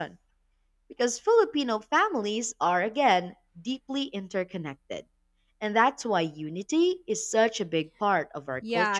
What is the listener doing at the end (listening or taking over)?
taking over